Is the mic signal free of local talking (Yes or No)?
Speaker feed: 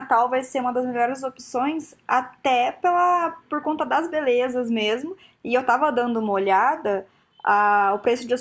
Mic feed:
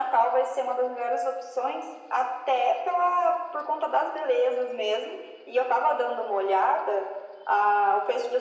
Yes